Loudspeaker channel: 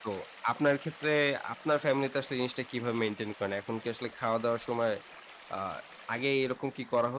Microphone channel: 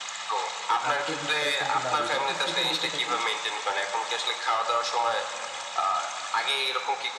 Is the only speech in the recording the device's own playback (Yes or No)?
No